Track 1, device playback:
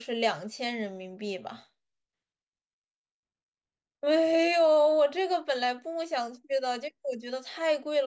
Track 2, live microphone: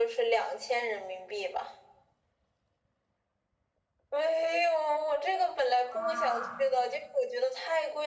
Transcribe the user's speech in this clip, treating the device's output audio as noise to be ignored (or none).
啊？